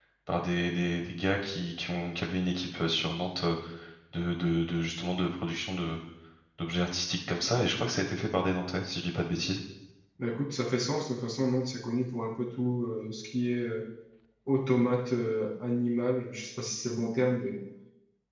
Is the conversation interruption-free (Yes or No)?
Yes